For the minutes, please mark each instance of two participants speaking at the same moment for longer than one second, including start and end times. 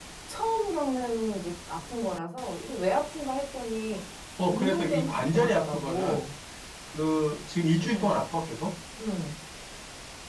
4.5-6.2

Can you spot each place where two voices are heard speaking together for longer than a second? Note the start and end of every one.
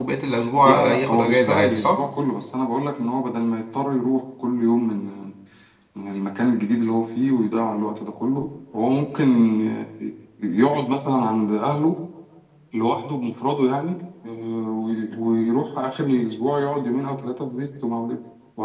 0.6-2.0

